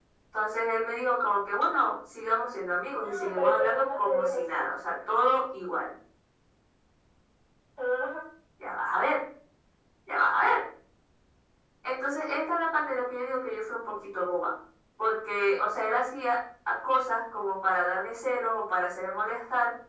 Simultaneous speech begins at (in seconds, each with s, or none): 3.0 s